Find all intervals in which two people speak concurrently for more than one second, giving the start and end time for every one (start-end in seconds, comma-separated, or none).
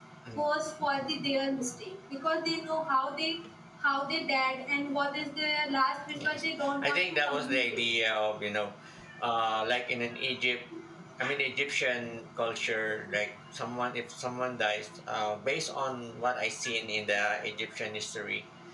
6.2-7.8